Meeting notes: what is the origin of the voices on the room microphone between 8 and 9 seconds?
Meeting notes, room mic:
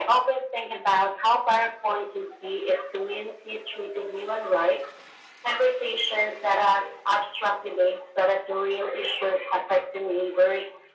echo only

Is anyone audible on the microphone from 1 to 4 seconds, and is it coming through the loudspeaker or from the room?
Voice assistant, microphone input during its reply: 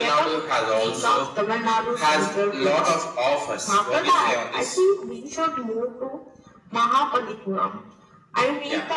echo only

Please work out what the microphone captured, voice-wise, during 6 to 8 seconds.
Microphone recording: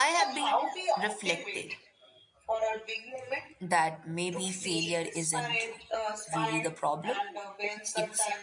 both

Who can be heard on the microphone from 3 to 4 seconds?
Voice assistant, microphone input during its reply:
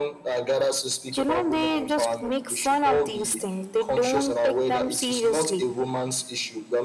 echo only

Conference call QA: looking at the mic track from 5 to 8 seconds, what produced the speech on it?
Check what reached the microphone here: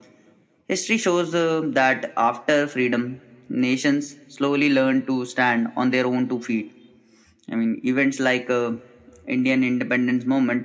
echo only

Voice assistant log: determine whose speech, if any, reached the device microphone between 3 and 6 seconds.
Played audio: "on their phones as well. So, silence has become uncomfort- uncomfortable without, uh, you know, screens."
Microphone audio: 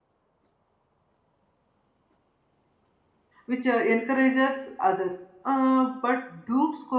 user only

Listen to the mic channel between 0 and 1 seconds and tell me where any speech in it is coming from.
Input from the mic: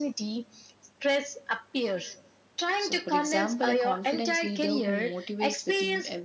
echo only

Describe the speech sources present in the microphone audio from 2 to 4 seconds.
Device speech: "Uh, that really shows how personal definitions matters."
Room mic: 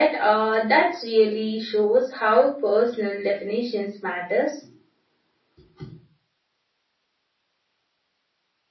echo only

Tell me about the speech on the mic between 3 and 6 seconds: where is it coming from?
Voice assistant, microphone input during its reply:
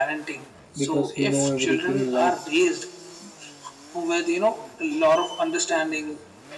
echo only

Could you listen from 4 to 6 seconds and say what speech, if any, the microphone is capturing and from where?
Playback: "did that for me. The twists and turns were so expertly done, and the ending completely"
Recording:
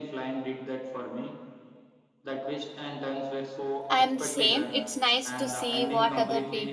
both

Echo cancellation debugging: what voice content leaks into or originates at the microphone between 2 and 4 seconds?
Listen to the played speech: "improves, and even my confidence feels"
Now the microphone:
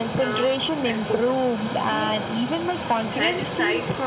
both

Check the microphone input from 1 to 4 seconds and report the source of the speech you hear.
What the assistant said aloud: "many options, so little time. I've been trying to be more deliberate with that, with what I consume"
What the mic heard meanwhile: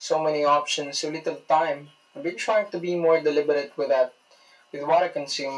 echo only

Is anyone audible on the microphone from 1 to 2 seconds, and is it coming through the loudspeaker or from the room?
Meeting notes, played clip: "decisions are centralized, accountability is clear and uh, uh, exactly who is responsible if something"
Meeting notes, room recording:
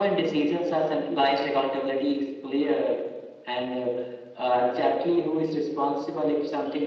echo only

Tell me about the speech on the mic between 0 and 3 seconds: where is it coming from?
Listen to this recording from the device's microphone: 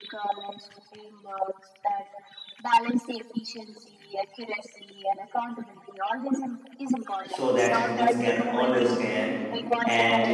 echo only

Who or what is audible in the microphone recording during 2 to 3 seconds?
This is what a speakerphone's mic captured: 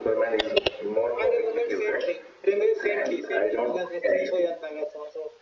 echo only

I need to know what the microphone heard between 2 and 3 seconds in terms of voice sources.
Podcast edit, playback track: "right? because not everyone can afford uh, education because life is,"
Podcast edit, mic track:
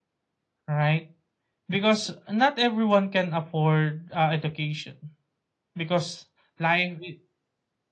echo only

